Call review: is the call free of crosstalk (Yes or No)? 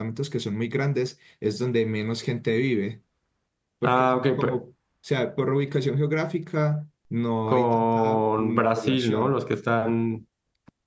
No